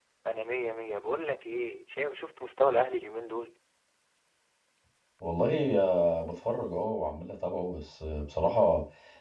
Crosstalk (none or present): none